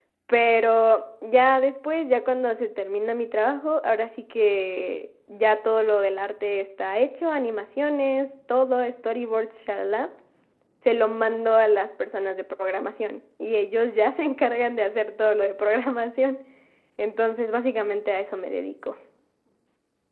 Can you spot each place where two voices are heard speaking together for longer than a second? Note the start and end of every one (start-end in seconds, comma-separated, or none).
none